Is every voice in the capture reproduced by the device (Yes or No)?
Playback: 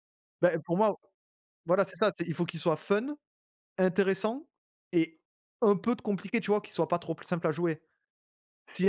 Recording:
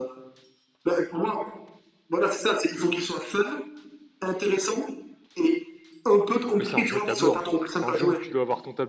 No